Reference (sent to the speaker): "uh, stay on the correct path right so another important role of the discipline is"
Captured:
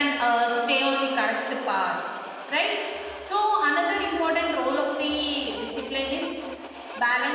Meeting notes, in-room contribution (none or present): none